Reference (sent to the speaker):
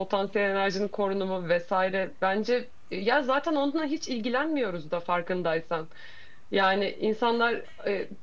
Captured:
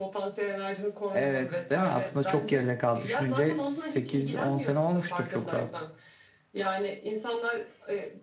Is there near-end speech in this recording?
Yes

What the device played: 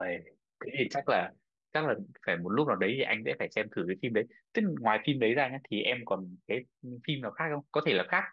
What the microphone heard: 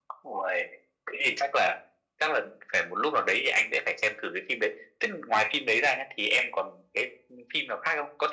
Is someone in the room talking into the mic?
No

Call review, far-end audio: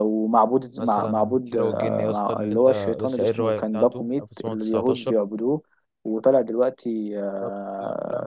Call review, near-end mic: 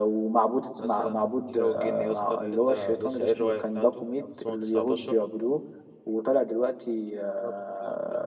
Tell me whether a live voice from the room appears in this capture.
No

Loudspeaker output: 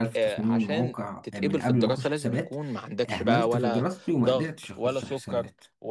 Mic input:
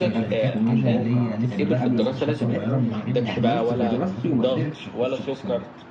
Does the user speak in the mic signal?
Yes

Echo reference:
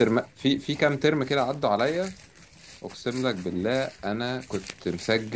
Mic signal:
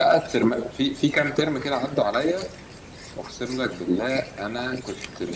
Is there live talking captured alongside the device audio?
No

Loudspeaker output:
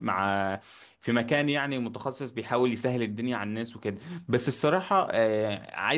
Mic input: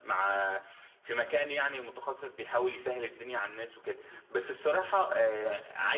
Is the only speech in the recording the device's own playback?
Yes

